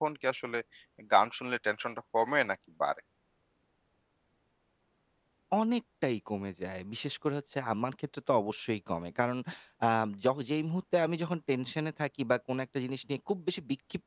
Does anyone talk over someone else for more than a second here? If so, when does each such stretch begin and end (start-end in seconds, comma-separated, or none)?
none